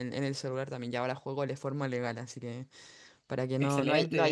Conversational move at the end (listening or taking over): listening